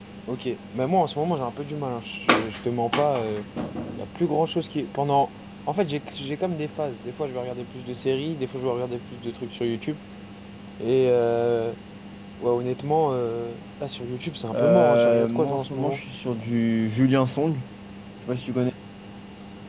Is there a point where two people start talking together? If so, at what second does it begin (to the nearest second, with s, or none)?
15 s